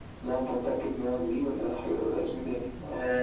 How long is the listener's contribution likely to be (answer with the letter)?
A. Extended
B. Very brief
A